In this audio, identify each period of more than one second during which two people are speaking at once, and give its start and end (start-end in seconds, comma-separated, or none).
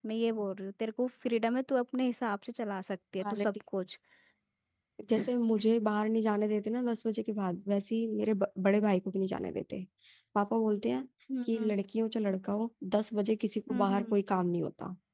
none